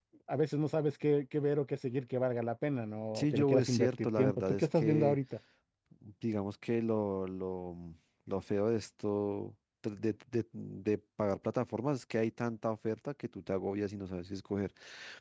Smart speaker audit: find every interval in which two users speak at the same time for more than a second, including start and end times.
3.1-5.2

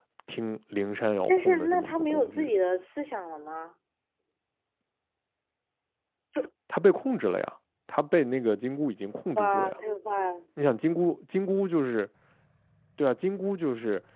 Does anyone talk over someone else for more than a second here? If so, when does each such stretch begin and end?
1.3-2.5

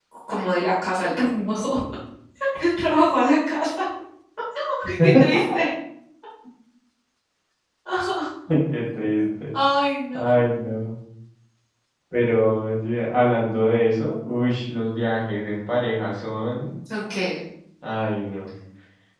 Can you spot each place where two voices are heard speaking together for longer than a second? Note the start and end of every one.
none

